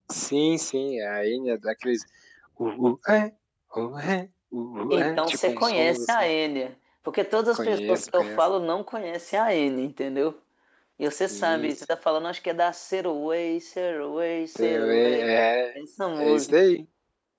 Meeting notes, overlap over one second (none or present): present